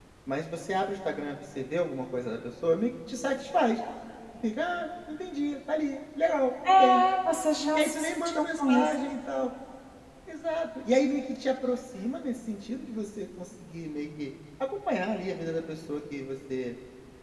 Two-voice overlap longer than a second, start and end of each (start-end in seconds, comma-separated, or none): 7.7-8.9